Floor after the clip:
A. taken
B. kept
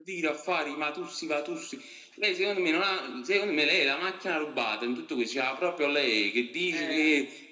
B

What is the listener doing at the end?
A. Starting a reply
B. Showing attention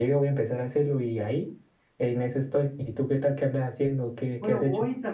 A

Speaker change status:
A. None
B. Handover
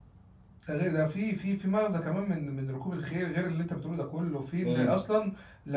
A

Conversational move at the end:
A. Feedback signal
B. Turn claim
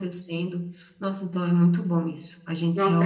B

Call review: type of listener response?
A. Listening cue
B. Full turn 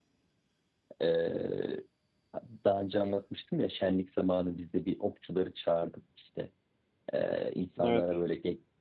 A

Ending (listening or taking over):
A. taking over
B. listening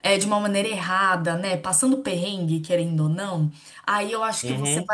B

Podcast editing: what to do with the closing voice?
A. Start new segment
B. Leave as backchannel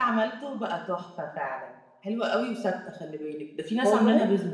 A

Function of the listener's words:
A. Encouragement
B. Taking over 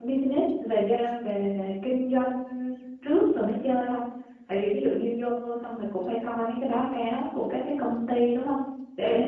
A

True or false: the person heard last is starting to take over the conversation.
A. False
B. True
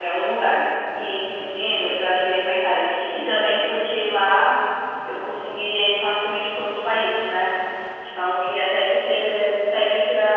A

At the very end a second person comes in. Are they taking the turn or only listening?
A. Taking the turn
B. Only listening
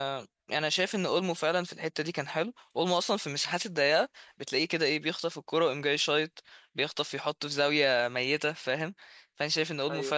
B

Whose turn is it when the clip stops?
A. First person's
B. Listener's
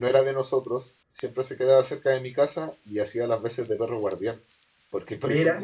A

